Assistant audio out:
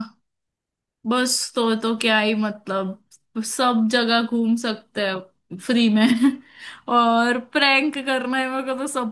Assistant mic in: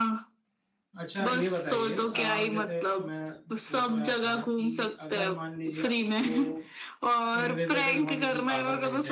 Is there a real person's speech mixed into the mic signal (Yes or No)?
Yes